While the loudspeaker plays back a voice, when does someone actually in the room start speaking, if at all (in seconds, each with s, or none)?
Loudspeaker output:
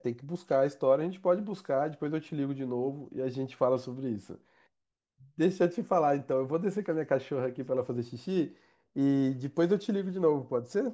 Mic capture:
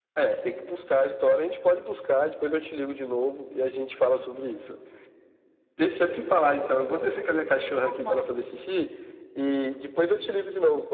7.8 s